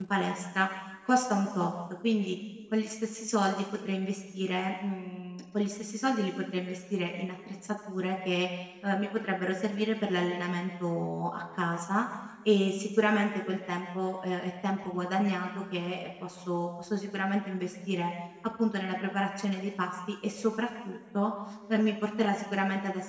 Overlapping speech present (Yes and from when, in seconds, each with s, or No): No